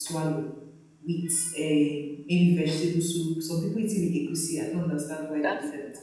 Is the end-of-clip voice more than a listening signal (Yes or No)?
Yes